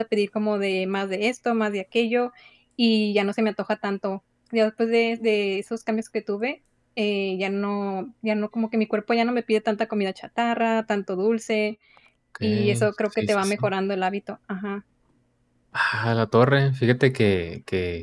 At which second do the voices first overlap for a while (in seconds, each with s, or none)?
12.4 s